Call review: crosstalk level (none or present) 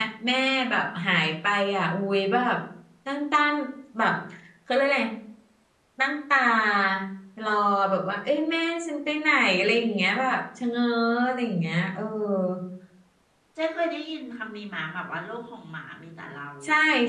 none